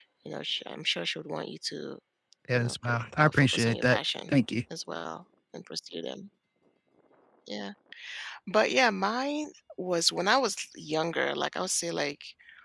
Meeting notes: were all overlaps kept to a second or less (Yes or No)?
No